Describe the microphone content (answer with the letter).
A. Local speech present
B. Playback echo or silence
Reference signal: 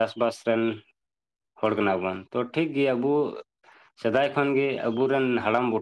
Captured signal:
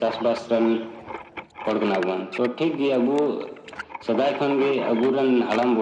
B